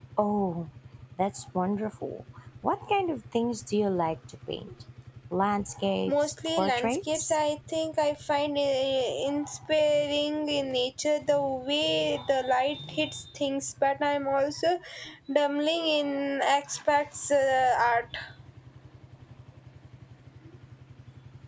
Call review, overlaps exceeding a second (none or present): present